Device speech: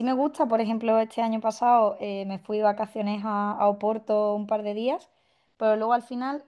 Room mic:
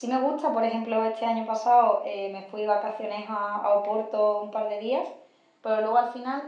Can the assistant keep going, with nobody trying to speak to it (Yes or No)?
Yes